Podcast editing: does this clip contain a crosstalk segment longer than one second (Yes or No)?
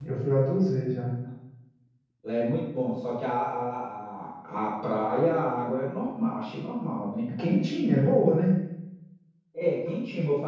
No